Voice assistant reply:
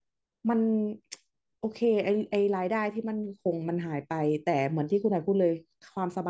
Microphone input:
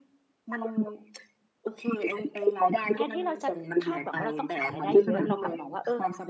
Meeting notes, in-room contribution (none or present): present